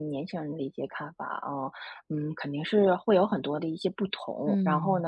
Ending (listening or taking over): listening